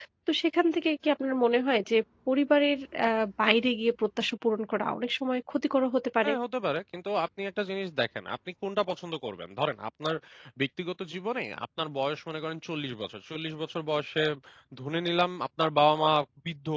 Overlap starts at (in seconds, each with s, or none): none